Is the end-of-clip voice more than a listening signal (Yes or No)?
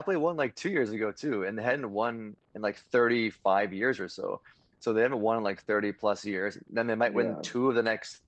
No